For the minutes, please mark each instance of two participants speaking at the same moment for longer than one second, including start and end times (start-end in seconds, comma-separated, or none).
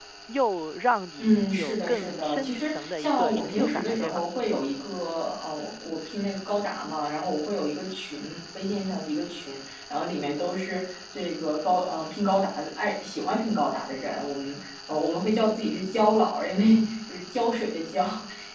1.2-4.2